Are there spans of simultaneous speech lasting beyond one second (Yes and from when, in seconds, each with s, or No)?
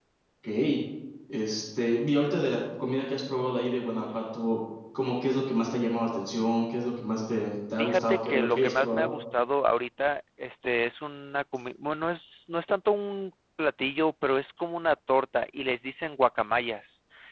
Yes, from 7.8 s